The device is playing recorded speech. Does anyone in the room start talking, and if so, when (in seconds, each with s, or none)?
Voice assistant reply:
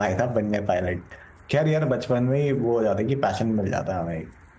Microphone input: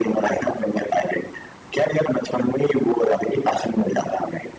none